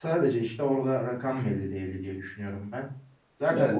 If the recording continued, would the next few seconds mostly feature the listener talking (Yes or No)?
No